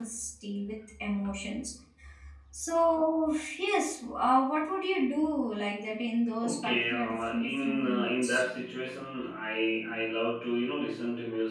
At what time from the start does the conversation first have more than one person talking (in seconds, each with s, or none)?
6.4 s